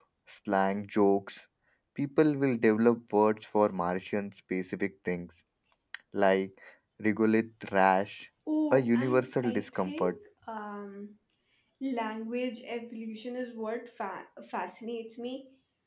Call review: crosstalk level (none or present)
present